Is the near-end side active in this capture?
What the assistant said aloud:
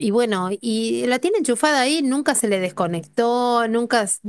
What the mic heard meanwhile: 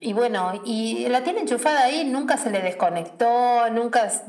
No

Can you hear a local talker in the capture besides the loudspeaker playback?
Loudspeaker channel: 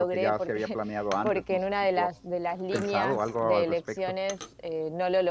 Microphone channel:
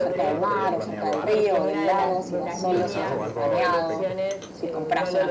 Yes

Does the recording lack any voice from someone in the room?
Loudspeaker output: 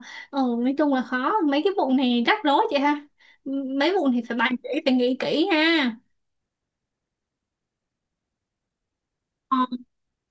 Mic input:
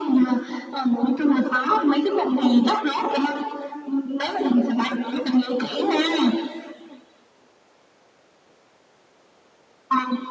Yes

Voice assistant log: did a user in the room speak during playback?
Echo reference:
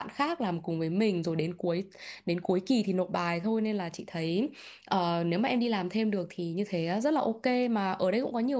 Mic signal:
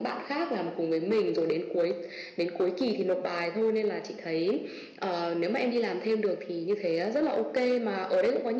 No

